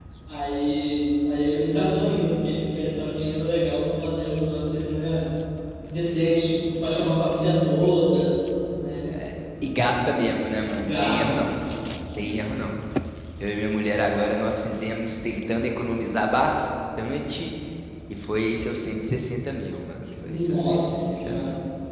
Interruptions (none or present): present